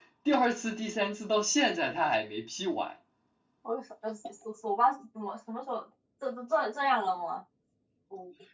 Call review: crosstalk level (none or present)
none